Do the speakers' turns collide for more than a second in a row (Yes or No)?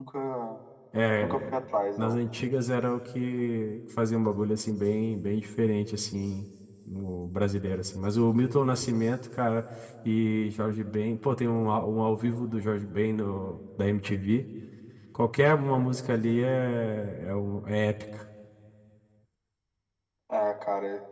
No